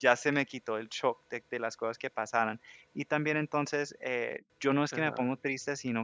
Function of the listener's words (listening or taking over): listening